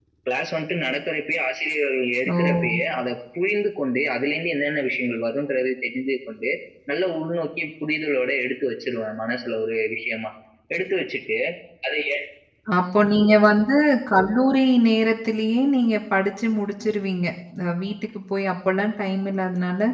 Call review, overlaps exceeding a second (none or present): none